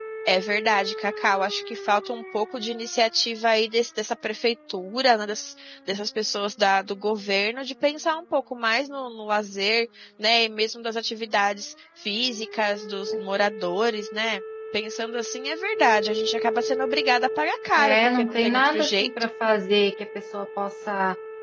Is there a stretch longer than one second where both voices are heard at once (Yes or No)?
Yes